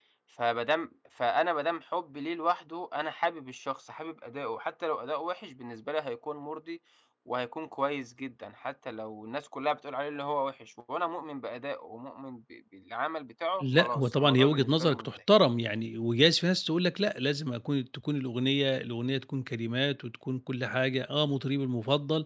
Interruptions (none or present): present